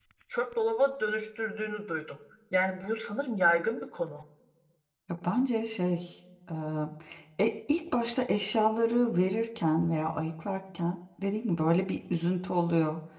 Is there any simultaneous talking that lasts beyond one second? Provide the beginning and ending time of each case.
none

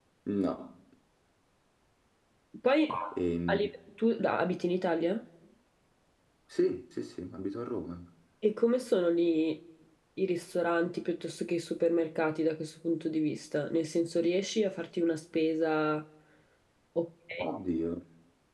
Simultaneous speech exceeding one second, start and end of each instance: none

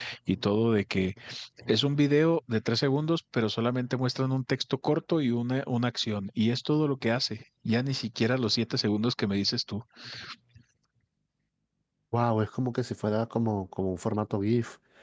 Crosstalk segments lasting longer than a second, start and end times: none

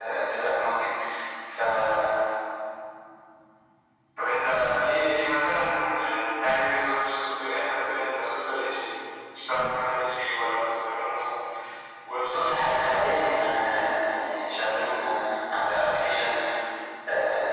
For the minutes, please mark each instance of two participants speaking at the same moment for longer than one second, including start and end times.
12.3-14.6

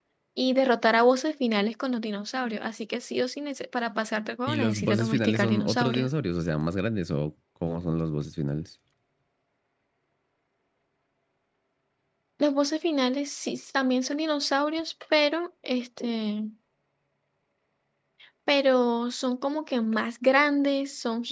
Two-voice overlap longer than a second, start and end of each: 4.5-6.1

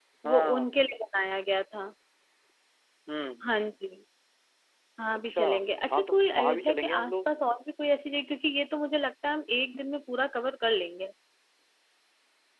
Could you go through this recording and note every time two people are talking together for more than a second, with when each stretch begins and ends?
5.9-7.2

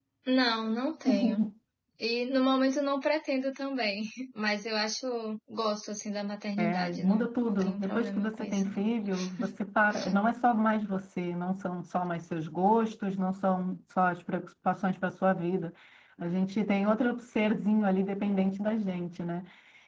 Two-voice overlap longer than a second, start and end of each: 6.6-8.8

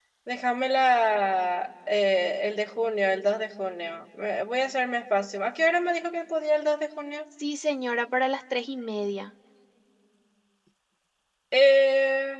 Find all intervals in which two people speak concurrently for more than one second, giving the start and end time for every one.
none

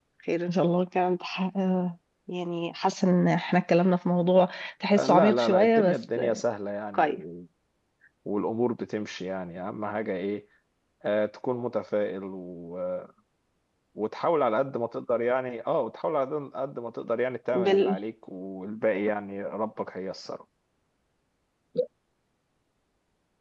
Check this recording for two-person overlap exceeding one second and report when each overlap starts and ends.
5.0-6.4

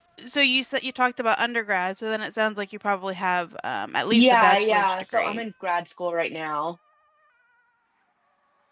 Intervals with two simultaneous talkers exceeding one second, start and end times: 4.1-5.4

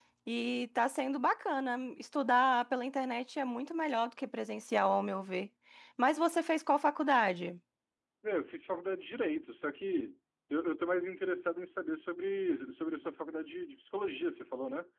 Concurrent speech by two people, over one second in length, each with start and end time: none

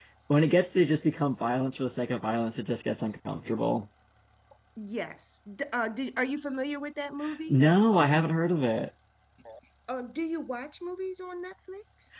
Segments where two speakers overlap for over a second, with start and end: none

